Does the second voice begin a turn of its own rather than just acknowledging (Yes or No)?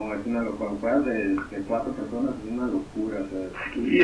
Yes